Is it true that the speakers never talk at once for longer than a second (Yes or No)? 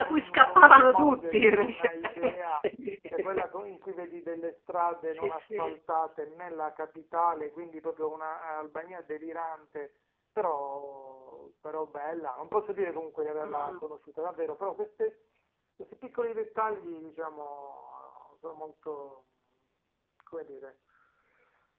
No